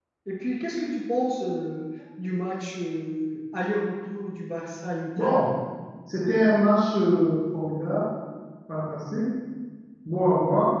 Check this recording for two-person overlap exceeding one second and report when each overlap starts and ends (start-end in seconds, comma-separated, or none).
none